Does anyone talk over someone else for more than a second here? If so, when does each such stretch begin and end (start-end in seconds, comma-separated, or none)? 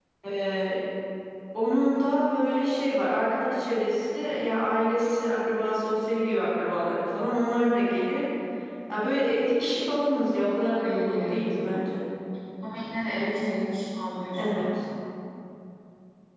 none